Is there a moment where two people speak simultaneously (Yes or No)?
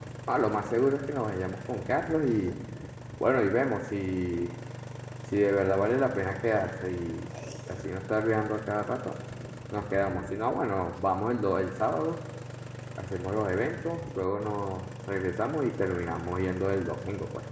No